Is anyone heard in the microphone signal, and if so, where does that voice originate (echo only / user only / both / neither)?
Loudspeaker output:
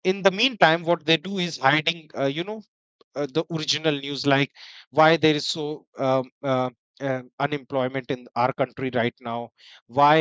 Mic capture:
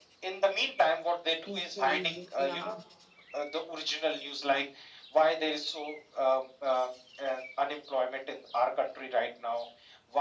both